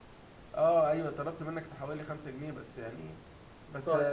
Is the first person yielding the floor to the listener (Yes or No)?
No